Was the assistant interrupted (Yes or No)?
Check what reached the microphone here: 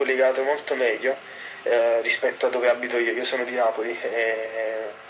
No